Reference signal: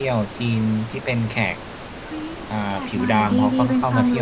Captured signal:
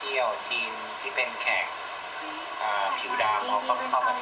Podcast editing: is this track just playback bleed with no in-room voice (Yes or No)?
Yes